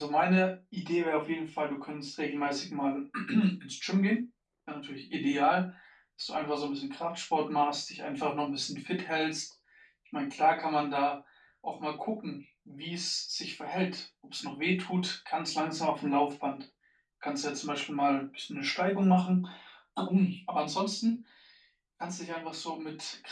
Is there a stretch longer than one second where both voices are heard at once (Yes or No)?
No